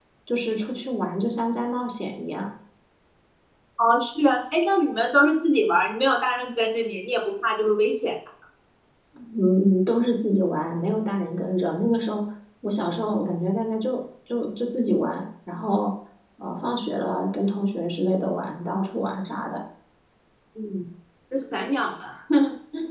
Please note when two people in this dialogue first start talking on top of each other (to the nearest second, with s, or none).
none